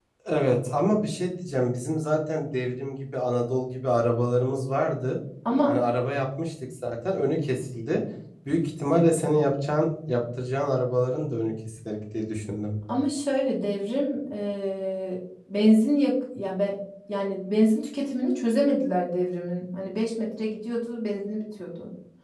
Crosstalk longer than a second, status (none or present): none